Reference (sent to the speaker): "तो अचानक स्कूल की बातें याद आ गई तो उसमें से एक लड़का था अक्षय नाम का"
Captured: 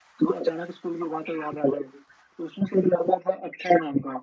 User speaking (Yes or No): No